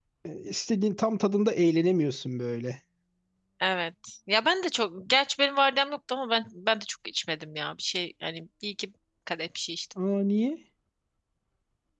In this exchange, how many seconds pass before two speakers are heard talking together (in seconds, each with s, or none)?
none